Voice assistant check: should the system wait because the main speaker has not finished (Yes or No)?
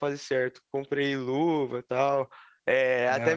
Yes